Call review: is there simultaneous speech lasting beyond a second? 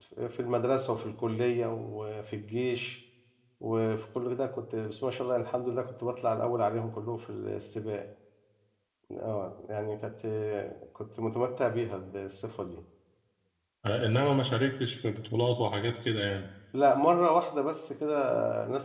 No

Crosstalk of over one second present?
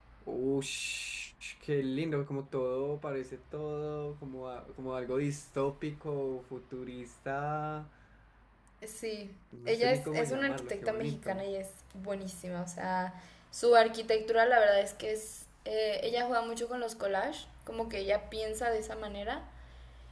Yes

